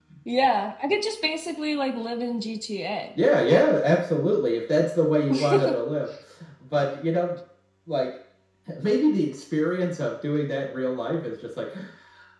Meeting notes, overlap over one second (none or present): none